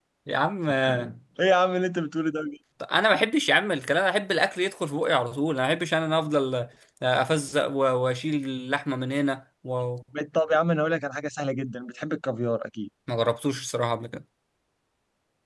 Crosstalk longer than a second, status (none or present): none